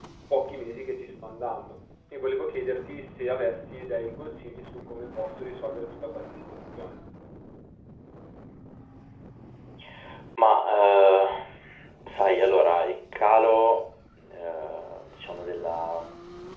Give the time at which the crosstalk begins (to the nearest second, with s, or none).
none